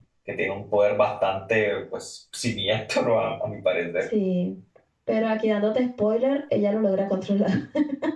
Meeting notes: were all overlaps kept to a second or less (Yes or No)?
Yes